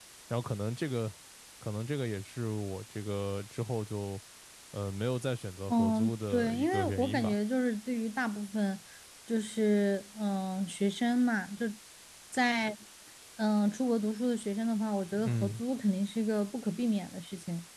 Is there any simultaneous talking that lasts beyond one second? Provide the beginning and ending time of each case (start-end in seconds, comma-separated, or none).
5.7-7.3